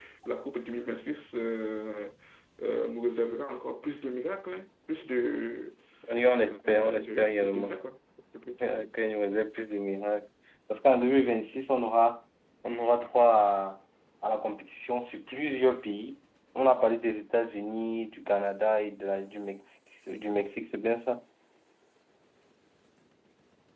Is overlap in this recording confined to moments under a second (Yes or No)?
No